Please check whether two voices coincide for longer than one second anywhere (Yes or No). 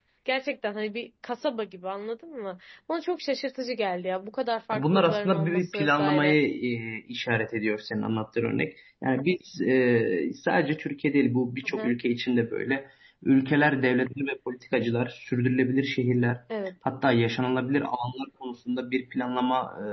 Yes